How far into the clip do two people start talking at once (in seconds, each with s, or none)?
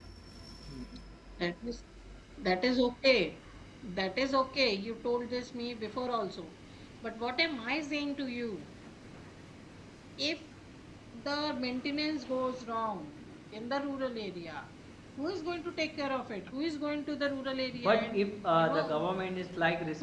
17.7 s